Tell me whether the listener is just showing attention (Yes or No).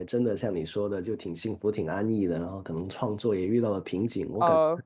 No